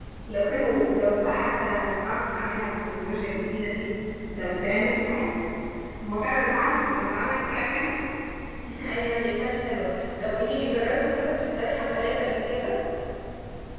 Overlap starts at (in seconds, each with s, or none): none